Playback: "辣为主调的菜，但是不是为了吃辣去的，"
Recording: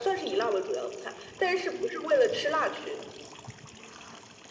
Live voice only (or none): none